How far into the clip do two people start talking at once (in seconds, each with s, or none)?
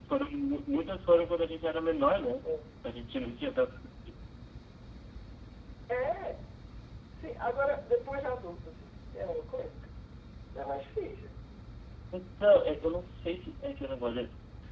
none